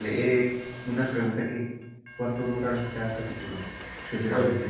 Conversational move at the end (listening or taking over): taking over